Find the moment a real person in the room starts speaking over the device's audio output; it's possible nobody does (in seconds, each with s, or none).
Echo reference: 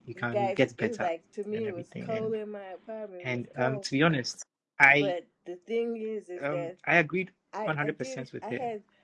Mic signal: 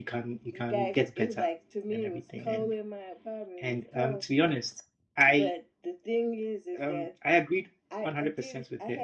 none